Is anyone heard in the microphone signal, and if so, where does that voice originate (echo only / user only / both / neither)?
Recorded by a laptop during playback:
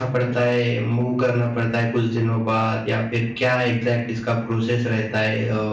user only